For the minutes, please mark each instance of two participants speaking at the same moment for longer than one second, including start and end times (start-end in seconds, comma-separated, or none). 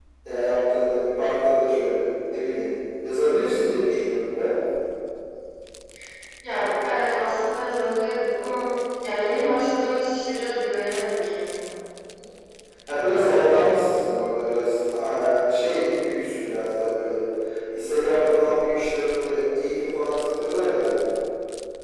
none